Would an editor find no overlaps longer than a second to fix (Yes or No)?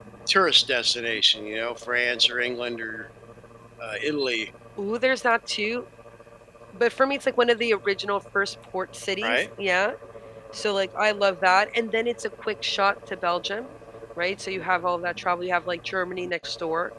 Yes